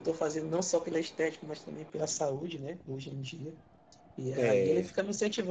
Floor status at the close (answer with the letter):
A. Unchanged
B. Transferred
A